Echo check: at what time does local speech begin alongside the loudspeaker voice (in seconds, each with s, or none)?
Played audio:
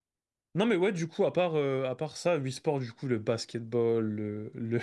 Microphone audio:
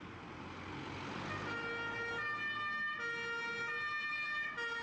none